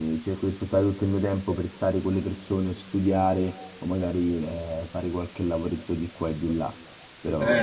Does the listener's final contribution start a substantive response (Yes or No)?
Yes